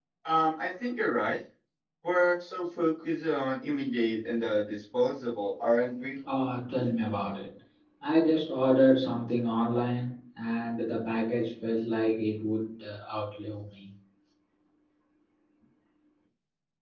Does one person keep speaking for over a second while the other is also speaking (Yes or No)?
No